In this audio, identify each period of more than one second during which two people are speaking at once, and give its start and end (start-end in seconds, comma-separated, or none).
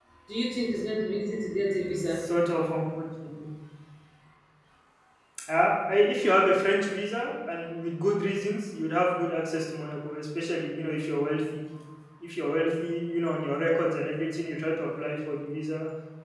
none